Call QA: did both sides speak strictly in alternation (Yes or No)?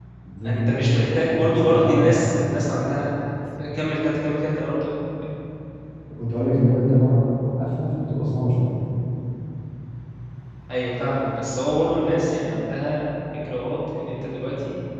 No